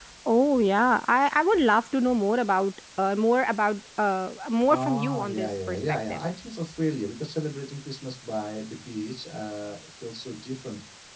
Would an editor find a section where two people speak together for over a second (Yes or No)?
Yes